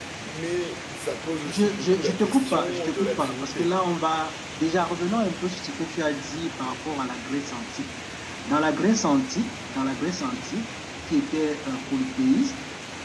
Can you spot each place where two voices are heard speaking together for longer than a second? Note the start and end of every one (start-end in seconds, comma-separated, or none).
1.4-3.7